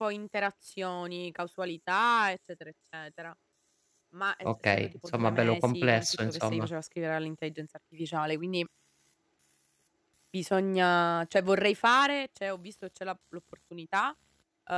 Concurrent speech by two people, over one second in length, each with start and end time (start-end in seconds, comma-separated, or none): 4.7-6.7